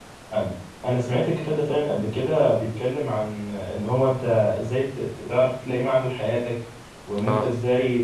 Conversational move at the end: listening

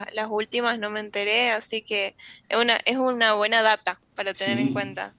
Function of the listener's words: taking over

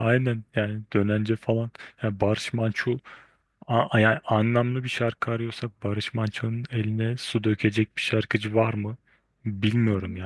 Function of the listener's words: taking over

